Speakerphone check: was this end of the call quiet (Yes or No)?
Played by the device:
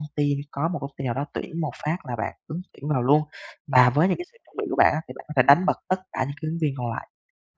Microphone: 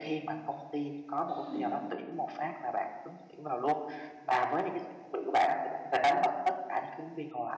No